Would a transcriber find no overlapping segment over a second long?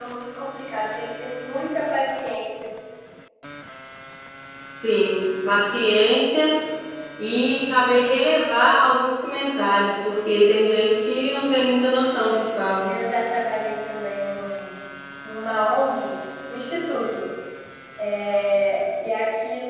Yes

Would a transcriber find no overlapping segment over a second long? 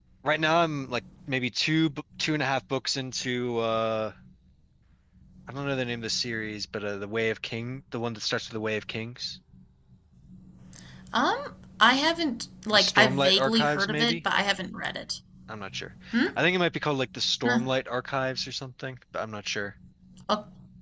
No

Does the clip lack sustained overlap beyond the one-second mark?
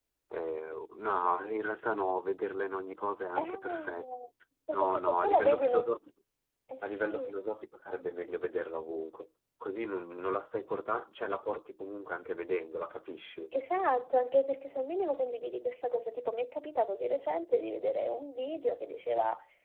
No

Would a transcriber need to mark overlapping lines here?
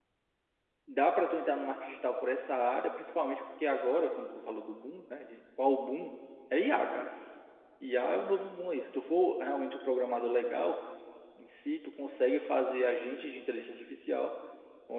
No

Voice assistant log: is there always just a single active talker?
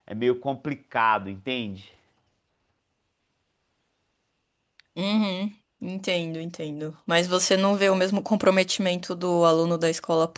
Yes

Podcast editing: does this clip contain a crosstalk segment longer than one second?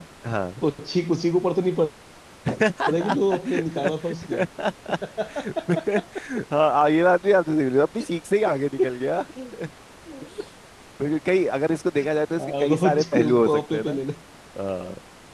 Yes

